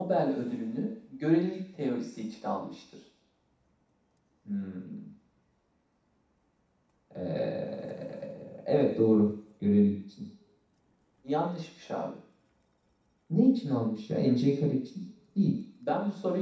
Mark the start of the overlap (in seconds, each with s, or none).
none